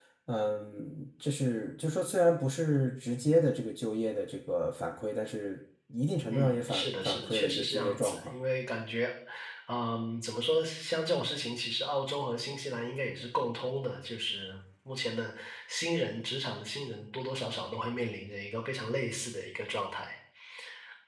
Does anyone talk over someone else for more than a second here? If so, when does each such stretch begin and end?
6.3-8.3

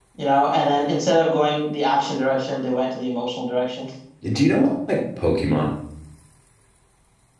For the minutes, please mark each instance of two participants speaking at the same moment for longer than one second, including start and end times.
none

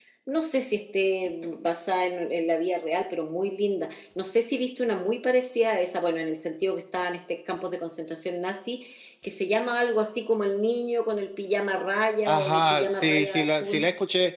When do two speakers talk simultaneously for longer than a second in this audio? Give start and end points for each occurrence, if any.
12.2-13.8

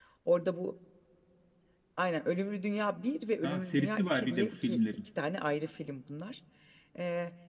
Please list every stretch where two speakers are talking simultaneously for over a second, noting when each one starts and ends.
3.4-4.8

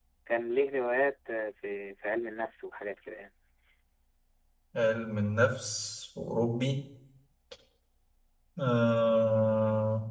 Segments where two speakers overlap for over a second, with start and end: none

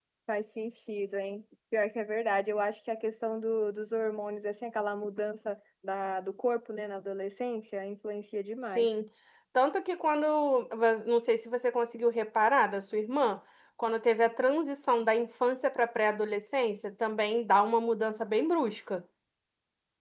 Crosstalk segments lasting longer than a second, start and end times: none

